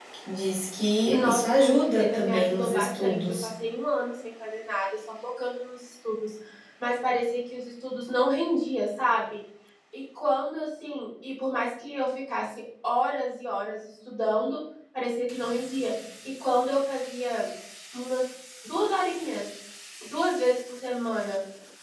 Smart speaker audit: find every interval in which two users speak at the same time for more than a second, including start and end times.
1.1-3.5

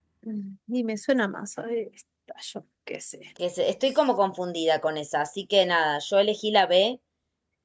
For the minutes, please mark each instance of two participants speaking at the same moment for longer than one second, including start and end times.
none

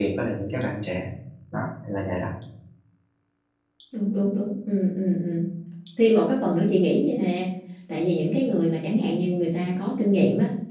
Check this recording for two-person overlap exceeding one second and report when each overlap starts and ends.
none

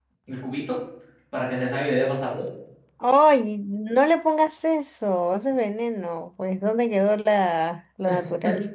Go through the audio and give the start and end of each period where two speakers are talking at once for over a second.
none

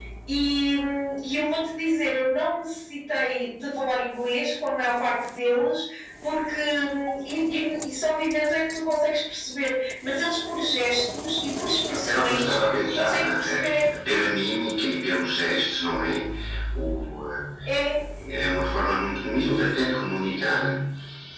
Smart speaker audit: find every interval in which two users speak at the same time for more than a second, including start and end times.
12.1-13.6

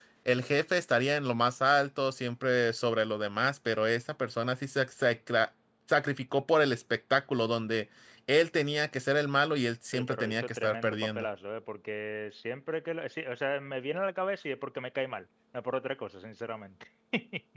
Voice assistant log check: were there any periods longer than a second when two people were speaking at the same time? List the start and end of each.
9.9-11.3

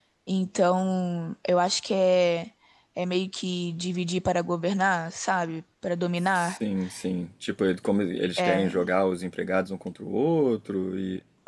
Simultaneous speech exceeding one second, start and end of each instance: none

